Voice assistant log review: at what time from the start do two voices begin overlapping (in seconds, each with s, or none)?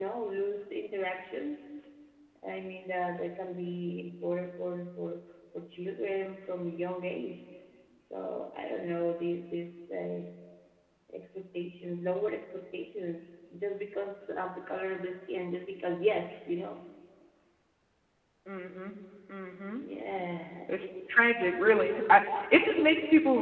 none